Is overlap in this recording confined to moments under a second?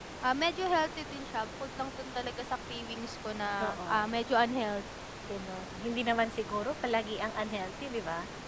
Yes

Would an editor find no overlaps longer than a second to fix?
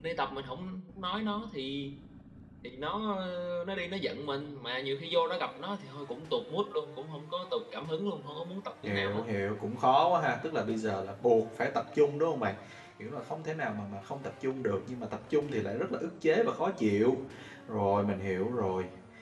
Yes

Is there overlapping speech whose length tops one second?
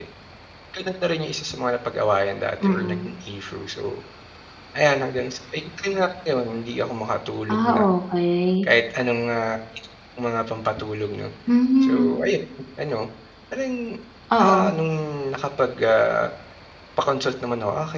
No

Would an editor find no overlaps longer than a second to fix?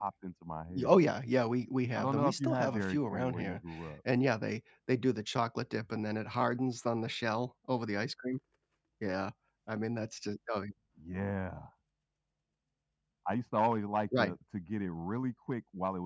No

